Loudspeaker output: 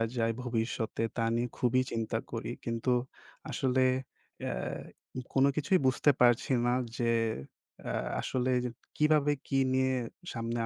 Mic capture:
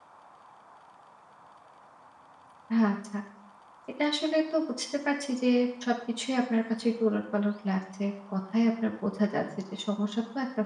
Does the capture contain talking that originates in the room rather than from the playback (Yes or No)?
Yes